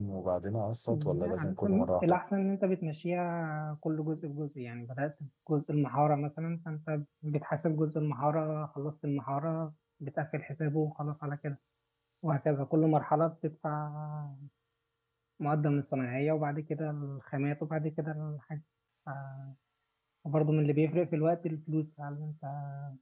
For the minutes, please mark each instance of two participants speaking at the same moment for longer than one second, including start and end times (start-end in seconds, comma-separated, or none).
0.9-2.2